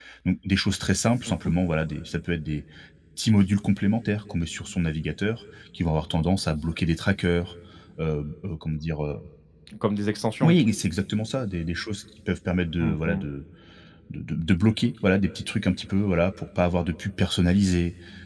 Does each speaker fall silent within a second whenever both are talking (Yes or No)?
Yes